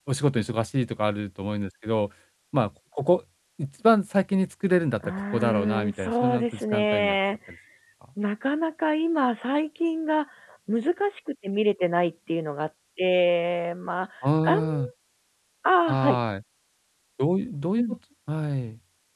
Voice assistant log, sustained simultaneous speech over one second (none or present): present